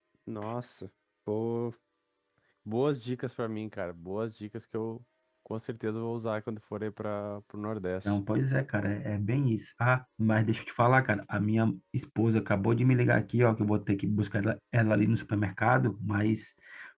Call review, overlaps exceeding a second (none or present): none